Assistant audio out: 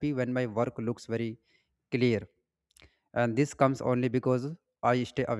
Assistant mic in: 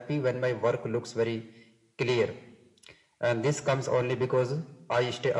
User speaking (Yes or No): No